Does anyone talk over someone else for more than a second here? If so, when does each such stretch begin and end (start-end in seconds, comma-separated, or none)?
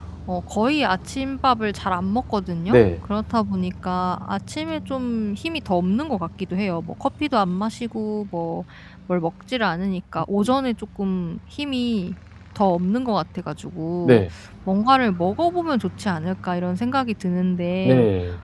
none